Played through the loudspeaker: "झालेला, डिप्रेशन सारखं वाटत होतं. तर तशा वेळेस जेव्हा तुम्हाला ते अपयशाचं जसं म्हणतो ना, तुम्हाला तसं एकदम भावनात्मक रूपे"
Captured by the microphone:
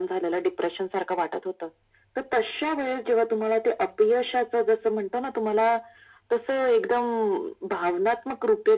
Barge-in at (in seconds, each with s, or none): none